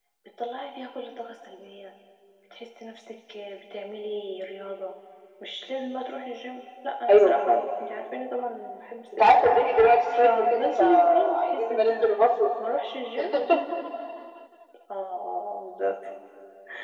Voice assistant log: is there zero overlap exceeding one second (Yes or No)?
No